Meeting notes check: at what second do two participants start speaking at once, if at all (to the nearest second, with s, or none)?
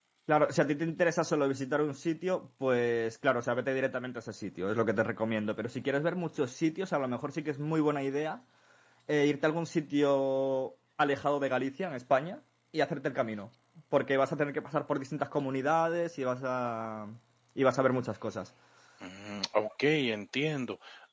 none